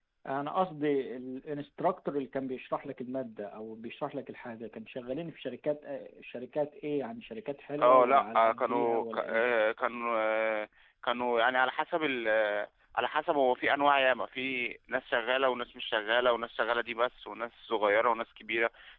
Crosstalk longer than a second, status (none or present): present